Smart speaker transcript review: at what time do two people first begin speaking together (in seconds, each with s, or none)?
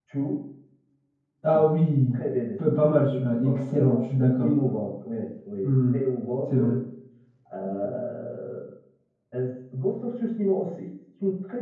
2.8 s